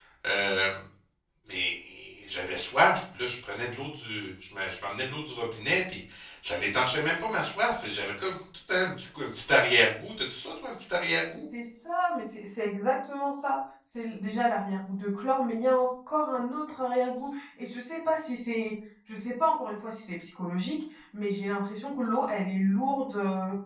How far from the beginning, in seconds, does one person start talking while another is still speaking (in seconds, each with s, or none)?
none